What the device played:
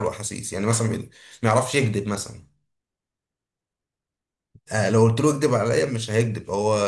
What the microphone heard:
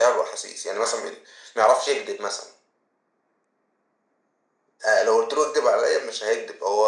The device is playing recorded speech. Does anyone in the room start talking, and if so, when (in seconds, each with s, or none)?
none